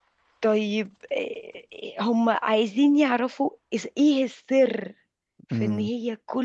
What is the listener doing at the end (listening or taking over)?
listening